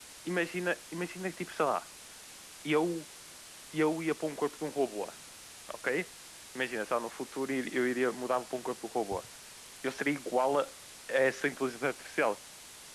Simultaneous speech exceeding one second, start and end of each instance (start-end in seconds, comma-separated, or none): none